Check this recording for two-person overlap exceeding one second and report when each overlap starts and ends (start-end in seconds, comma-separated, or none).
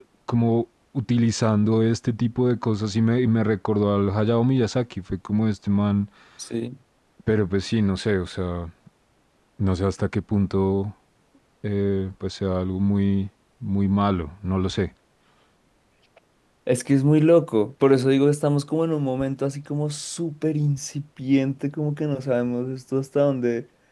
none